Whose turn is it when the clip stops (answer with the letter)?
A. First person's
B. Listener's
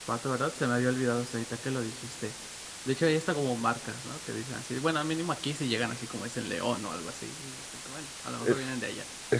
B